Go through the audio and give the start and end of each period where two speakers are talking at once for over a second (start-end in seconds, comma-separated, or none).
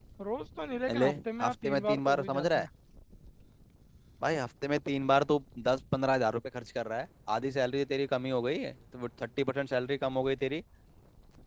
0.9-2.7